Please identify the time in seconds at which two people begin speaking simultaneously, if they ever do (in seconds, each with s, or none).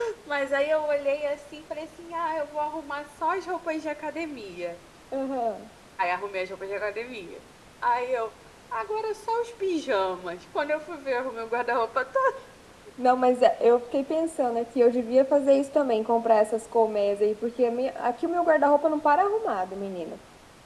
none